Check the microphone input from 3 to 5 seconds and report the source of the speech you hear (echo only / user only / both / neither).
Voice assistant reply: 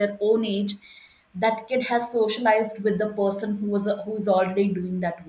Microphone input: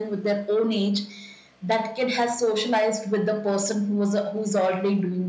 echo only